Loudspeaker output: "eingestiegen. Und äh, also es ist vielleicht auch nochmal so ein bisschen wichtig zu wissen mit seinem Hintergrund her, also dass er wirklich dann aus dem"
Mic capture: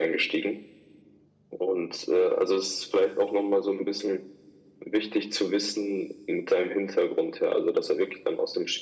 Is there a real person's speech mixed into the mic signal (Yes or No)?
No